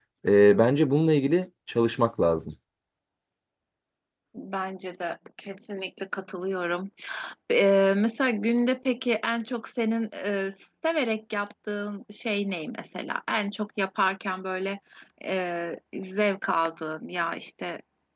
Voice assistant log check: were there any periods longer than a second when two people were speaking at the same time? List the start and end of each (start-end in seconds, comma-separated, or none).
none